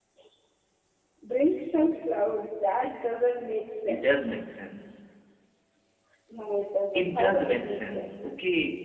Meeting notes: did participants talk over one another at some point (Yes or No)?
Yes